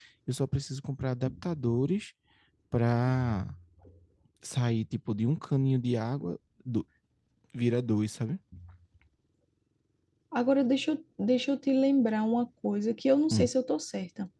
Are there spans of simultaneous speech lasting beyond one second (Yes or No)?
No